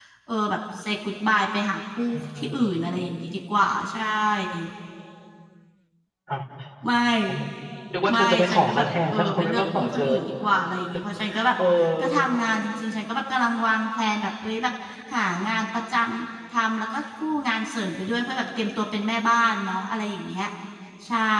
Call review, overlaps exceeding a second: present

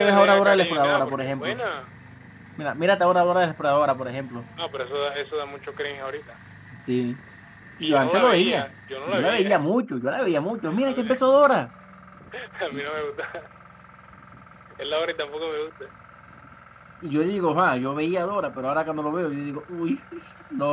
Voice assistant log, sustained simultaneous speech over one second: present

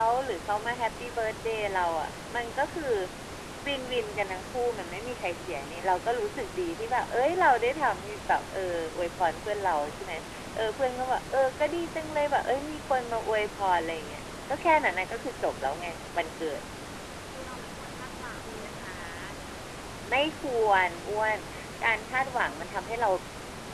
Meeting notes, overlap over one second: none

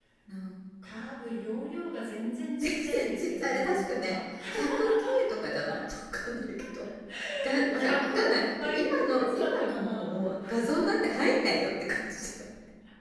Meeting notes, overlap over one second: present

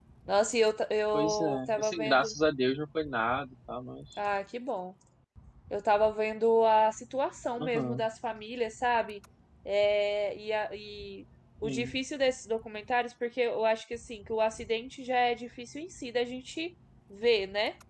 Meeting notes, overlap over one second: present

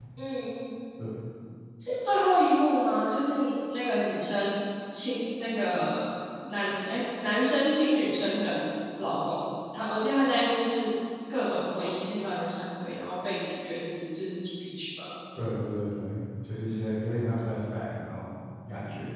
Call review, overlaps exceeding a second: none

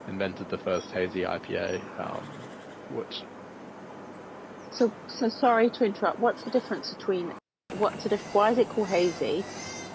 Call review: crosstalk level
none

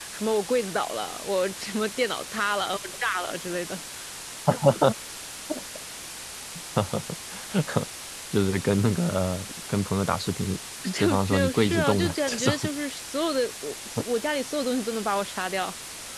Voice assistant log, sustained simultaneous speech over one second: present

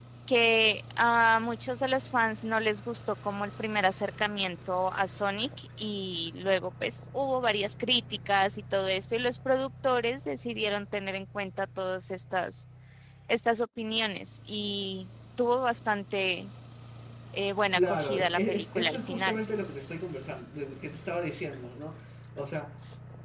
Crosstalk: present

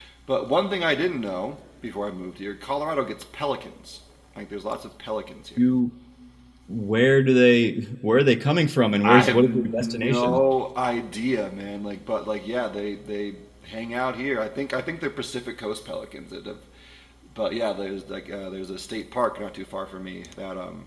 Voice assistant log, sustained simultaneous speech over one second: present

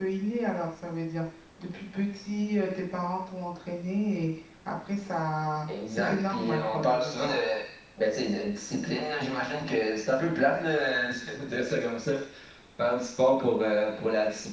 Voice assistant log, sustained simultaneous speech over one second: present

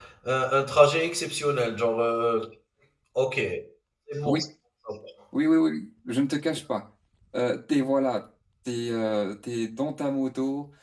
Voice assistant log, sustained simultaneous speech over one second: none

